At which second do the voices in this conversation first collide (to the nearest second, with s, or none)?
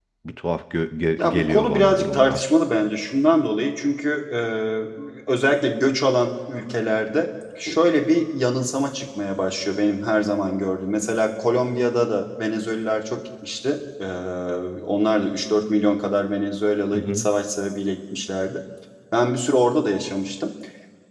1 s